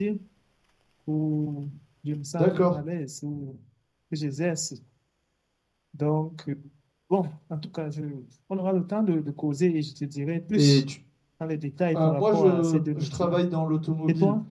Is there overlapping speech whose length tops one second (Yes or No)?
Yes